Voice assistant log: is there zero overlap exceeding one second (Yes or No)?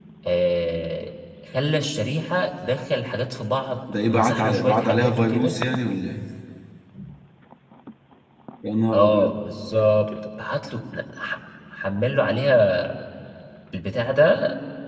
No